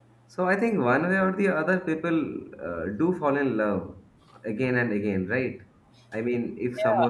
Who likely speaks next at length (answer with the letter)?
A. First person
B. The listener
B